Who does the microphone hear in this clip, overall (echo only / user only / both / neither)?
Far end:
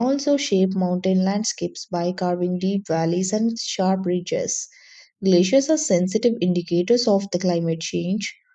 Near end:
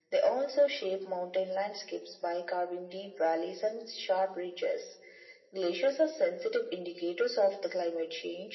echo only